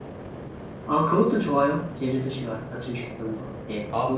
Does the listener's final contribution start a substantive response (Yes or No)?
Yes